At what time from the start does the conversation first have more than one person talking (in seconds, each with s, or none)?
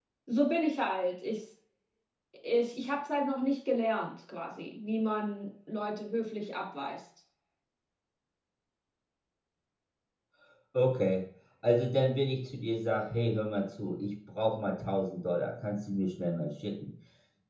none